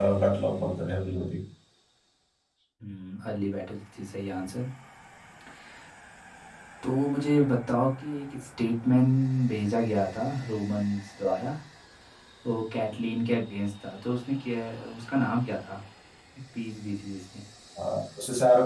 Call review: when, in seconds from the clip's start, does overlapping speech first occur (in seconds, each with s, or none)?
none